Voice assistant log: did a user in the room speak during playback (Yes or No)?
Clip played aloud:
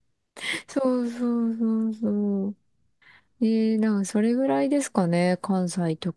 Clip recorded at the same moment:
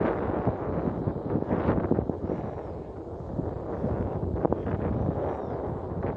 No